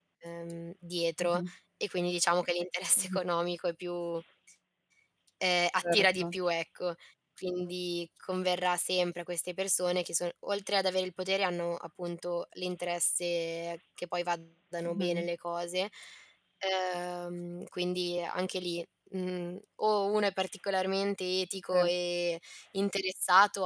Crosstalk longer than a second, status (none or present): none